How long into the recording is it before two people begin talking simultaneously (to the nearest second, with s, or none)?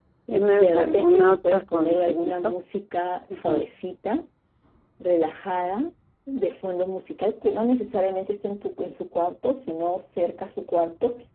1 s